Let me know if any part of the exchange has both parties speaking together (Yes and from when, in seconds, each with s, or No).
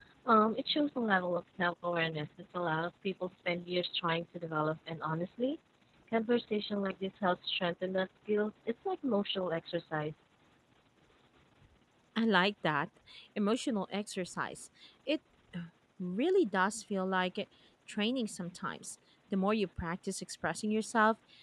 No